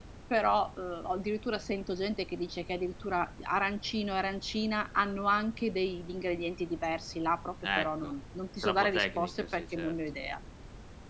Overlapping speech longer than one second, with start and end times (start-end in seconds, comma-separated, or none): 8.6-9.9